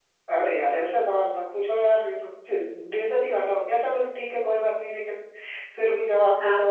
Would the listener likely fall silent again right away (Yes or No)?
No